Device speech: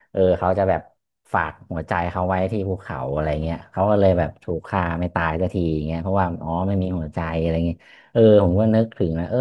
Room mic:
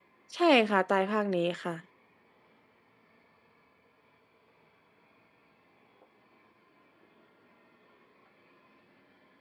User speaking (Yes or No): Yes